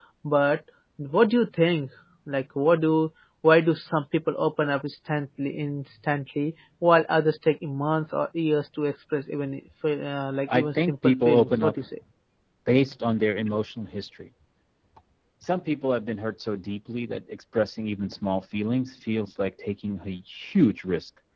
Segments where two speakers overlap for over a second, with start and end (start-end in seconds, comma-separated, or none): 10.5-11.8